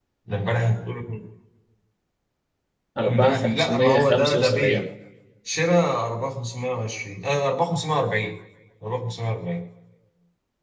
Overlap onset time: 3.0 s

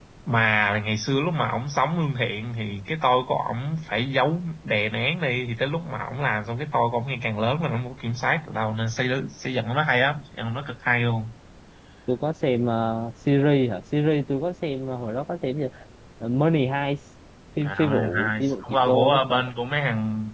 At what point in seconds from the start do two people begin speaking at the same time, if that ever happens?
17.6 s

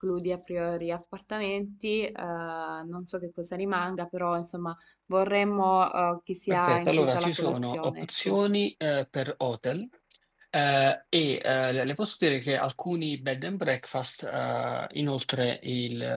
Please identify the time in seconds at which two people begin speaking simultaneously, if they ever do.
6.5 s

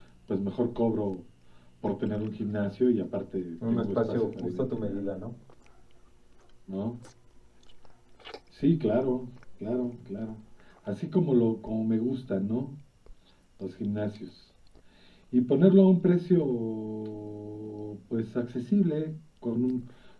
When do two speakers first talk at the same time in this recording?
3.6 s

